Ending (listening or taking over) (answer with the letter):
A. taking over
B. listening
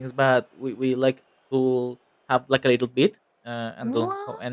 B